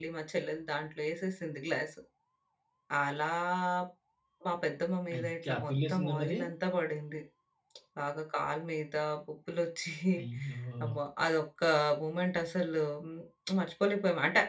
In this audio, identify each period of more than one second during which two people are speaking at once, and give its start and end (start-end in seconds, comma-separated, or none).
5.2-6.4